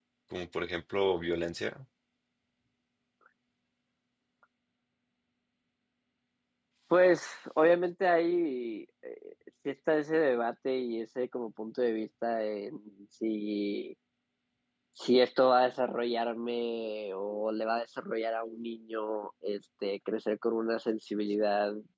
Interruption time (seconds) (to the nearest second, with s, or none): none